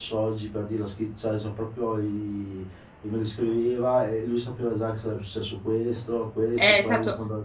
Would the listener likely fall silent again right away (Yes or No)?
No